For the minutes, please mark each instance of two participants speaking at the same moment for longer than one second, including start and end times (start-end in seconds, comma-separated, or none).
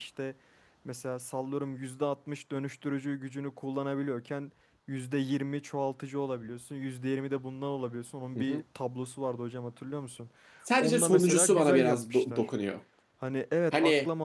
10.8-12.5